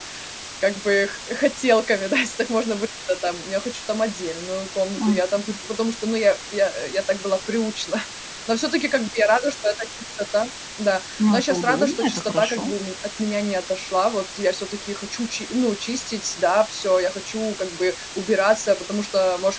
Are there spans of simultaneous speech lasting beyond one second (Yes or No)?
Yes